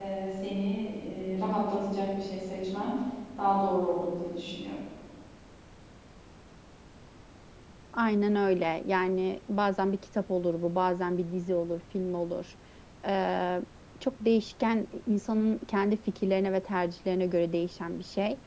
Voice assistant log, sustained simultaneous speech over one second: none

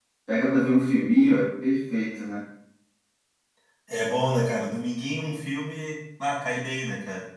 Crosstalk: none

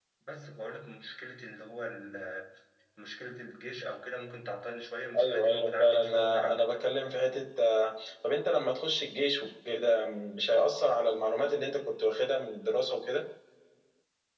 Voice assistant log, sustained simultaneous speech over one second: present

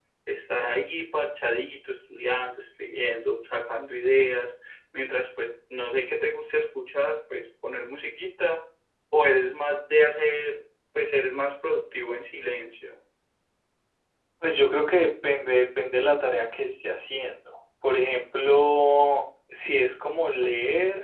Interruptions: none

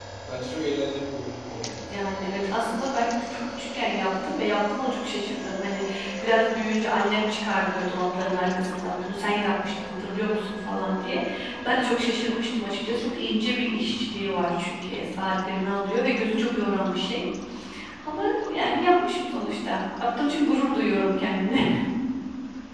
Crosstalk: none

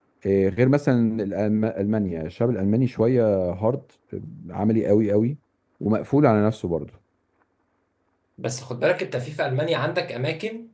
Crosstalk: none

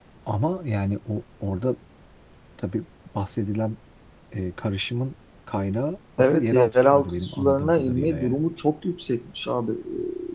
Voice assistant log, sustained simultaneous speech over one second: present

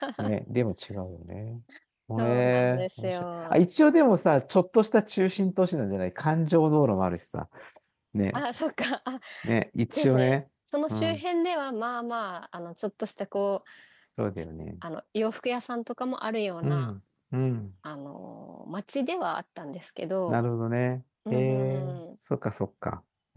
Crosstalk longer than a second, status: present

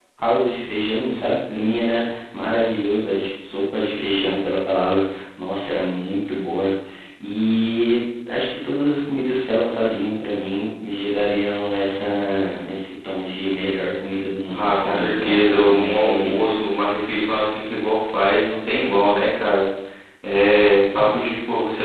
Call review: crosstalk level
present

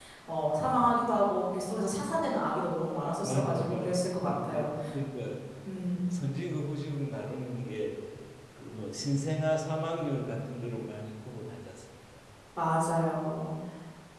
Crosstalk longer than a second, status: present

